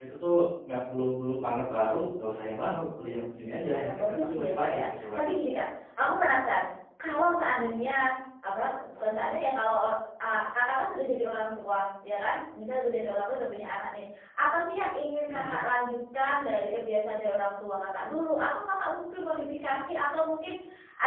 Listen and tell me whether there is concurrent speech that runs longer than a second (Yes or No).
Yes